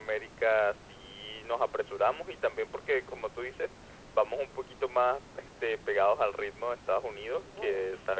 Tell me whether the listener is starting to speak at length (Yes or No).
No